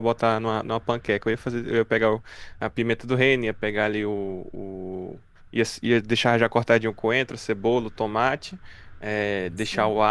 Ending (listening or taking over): listening